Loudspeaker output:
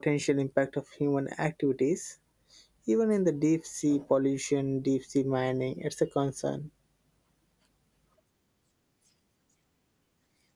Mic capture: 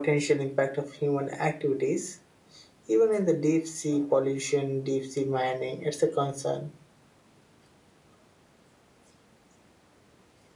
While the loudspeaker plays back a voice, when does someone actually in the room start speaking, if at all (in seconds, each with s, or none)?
none